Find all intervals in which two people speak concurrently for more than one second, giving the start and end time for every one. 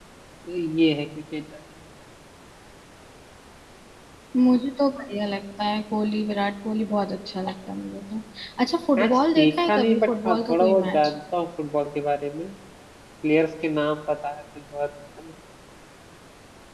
9.0-11.1

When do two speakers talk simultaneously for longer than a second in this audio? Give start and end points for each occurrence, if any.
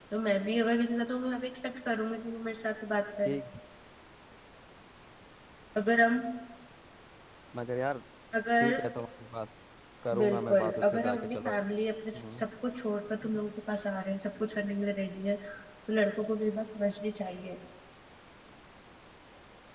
10.2-11.6

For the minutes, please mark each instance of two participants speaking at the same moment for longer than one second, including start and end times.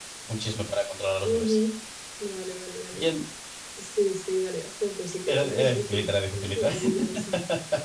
5.3-6.7

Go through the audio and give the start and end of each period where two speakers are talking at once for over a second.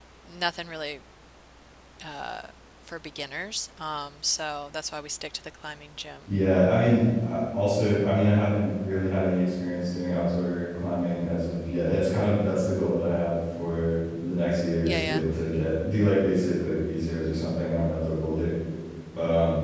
none

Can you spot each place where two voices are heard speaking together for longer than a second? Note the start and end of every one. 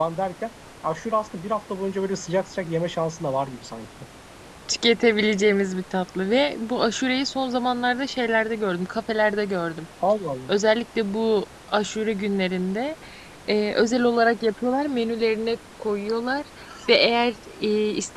none

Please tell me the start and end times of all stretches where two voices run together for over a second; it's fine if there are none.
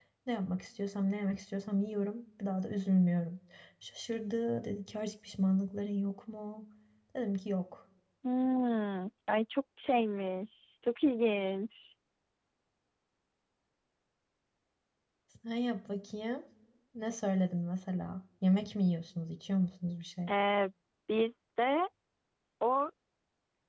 none

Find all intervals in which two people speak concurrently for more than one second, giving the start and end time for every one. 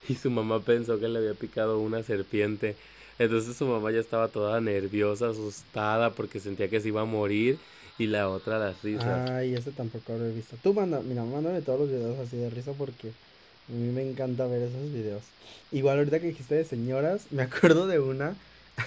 none

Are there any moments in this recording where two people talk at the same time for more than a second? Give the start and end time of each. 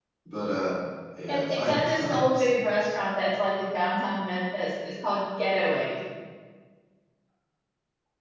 1.3-2.5

